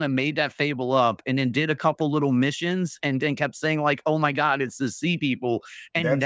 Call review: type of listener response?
taking over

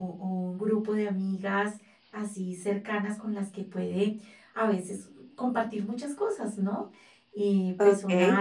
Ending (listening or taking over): listening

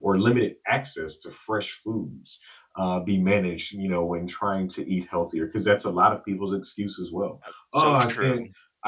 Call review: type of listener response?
listening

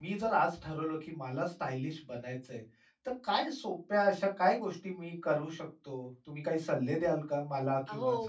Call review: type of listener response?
taking over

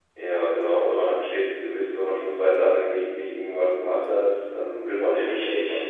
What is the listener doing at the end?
taking over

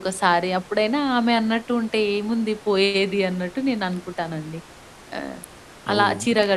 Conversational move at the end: listening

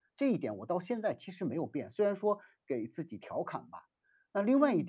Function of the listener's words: listening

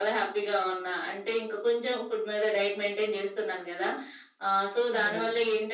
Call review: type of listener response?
listening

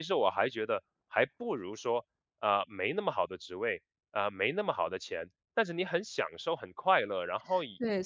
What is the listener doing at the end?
taking over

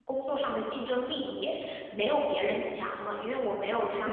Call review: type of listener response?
listening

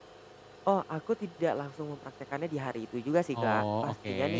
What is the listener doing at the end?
listening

